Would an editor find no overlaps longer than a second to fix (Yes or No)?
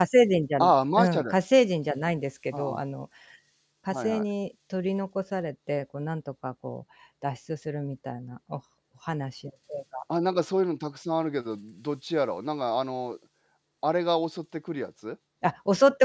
Yes